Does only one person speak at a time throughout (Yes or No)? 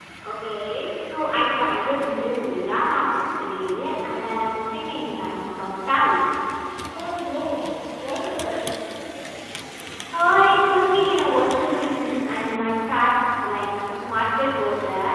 Yes